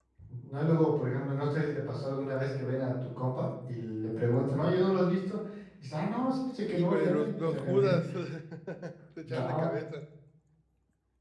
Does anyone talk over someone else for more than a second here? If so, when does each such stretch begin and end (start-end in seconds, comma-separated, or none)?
6.7-8.0